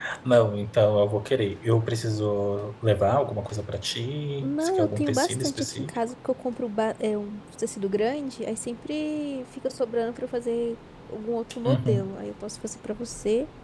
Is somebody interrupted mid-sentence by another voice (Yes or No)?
Yes